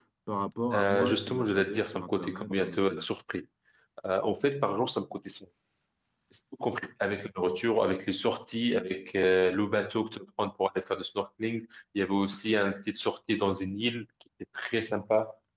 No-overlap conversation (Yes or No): No